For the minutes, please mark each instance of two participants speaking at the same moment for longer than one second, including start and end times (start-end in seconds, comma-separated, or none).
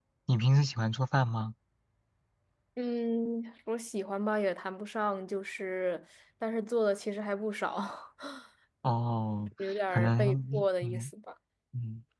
9.6-11.1